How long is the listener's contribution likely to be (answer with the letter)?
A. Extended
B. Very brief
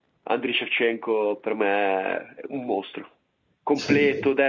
B